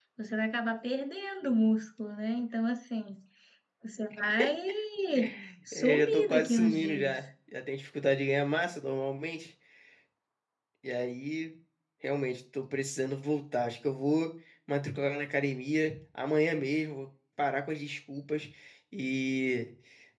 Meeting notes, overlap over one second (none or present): present